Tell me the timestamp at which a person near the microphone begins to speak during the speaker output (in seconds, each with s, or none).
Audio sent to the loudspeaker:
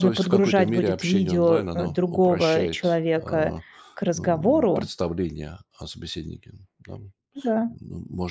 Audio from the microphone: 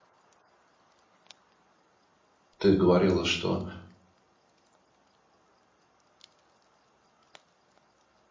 2.6 s